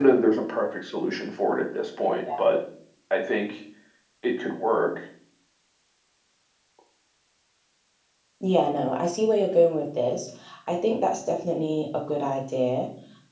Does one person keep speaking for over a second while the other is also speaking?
No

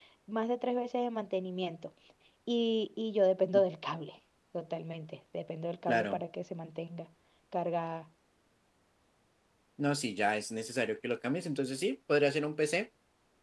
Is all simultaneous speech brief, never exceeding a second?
Yes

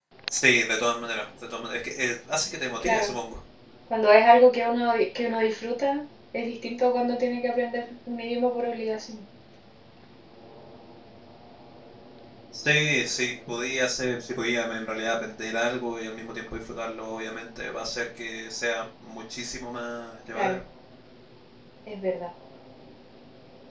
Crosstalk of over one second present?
No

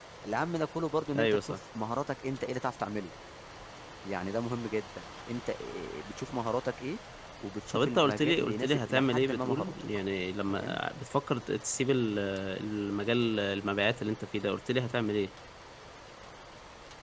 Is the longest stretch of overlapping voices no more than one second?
No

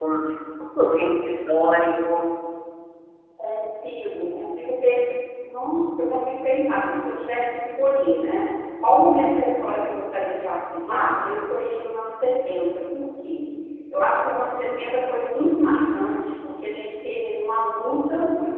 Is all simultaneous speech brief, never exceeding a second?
Yes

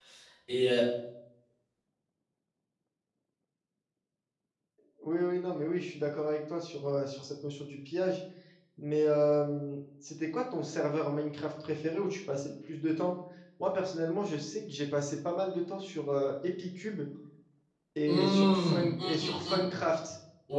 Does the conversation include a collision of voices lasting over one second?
Yes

